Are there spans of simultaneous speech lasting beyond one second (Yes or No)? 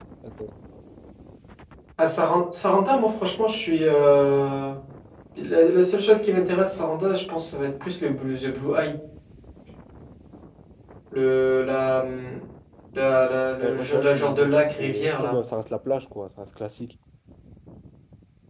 Yes